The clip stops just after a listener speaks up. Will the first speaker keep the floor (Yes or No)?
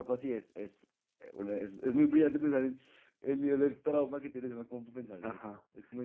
No